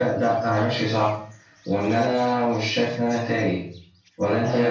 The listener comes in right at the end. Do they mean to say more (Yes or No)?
Yes